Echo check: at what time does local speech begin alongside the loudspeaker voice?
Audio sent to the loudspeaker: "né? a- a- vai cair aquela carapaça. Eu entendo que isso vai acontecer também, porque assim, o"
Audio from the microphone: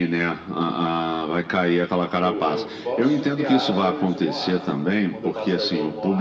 2 s

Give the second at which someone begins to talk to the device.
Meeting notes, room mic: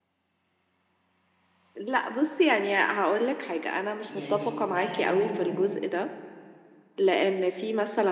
4 s

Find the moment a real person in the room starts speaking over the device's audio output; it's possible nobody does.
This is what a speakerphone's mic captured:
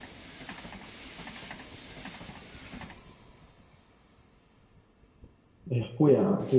6 s

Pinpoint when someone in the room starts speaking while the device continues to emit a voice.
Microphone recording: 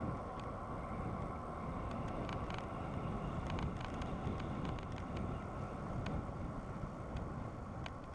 none

